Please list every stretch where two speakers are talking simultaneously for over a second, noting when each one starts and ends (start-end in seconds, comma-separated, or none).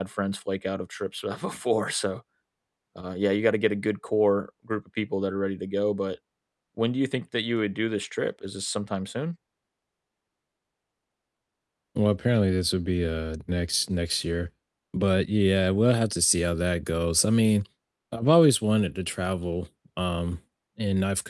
none